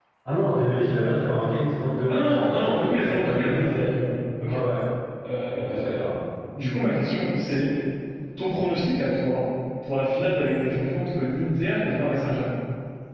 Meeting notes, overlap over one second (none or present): present